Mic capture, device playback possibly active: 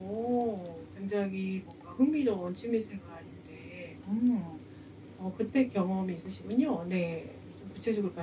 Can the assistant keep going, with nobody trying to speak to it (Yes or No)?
Yes